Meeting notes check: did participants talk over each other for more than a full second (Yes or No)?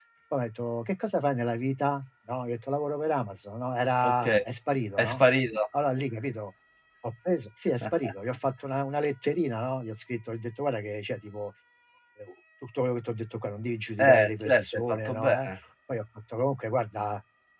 Yes